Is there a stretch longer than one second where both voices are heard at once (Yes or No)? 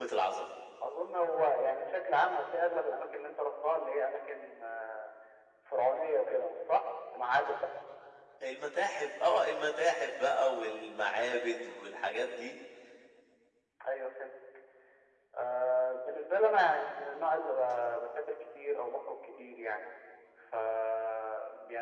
No